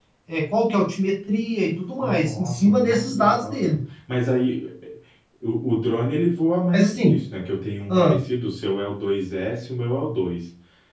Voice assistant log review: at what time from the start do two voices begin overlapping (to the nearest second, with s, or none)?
2 s